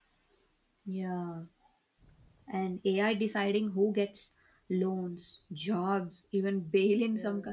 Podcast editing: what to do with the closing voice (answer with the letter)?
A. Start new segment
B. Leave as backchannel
B